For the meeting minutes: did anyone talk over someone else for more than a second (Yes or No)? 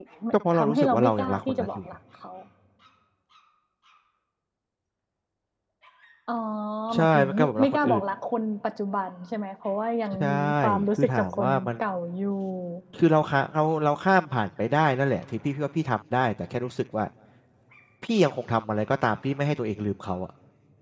Yes